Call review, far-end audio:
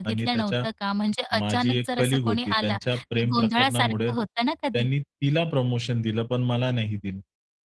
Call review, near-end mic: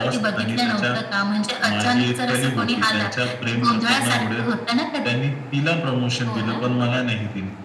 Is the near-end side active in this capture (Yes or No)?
Yes